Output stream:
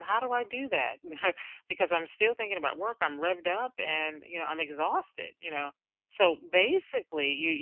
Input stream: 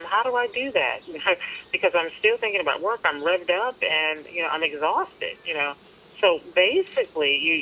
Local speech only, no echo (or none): none